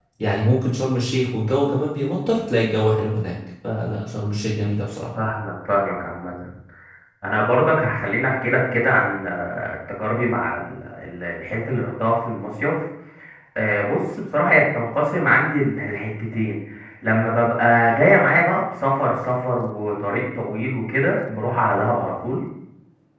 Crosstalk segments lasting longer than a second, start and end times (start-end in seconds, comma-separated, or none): none